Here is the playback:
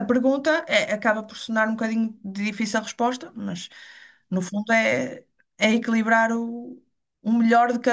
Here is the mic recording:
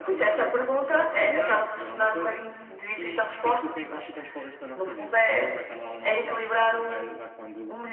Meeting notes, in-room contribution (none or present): present